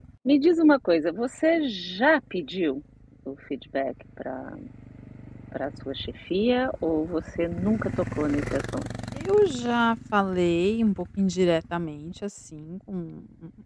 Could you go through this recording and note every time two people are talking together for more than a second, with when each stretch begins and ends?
none

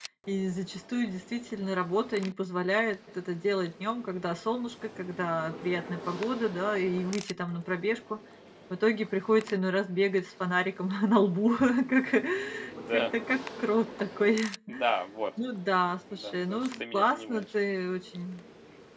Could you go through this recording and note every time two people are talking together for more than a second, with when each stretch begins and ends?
16.1-17.4

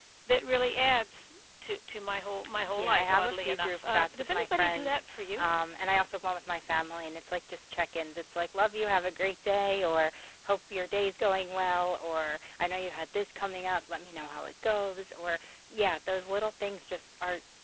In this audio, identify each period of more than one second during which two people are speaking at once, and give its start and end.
2.6-5.5

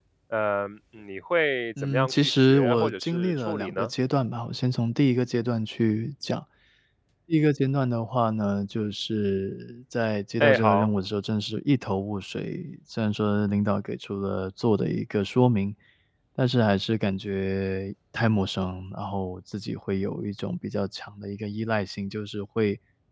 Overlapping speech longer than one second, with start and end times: 1.8-3.9

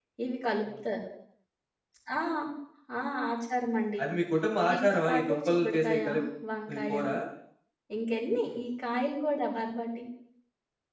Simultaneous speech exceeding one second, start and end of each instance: 4.7-6.0

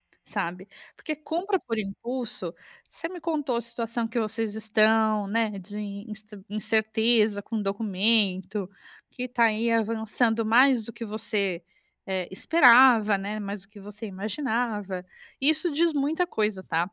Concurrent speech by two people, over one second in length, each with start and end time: none

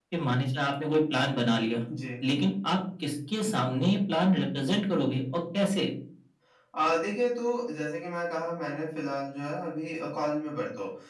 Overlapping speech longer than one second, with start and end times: none

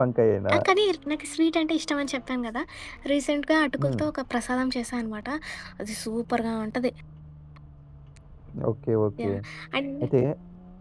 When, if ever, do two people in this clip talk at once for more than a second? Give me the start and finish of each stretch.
none

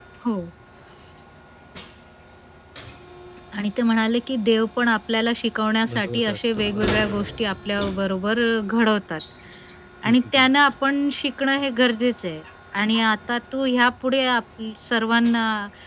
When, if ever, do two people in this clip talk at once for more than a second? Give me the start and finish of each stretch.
6.0-7.3

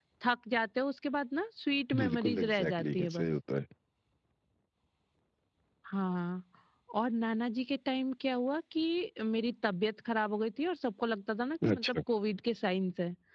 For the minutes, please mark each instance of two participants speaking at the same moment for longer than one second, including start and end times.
2.0-3.3

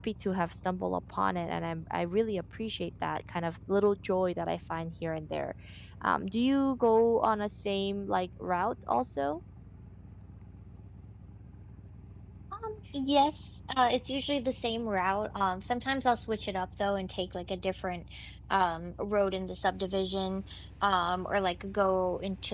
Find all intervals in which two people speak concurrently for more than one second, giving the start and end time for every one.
none

